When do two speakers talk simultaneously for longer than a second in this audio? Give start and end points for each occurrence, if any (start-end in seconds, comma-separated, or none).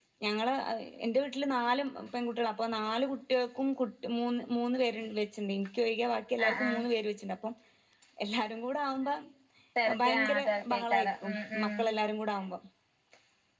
10.0-11.8